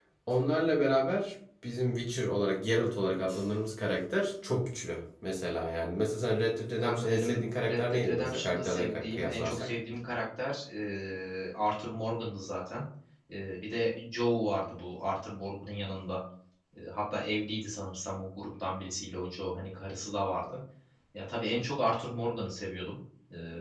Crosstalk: present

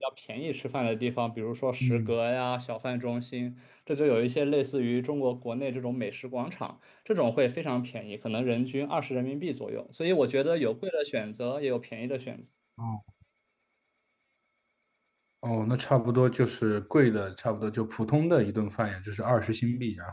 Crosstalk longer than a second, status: none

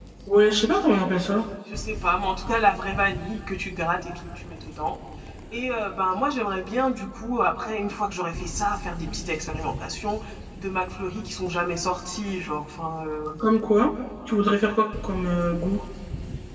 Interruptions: none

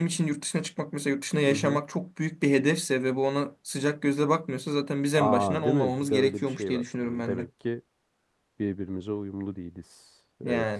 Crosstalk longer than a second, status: present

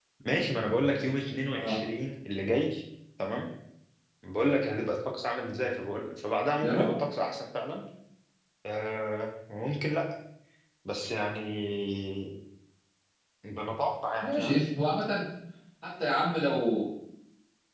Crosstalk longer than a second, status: none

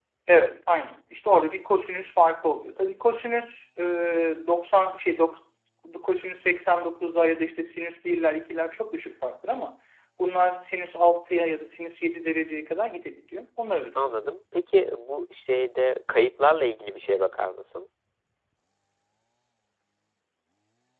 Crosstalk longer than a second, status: none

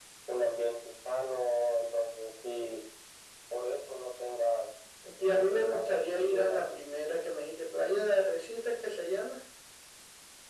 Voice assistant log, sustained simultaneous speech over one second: present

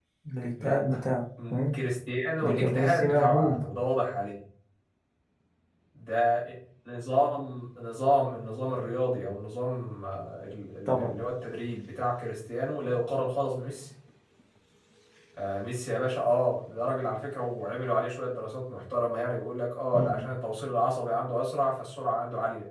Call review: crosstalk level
present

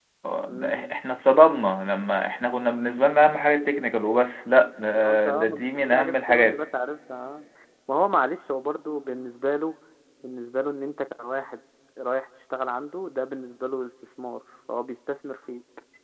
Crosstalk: present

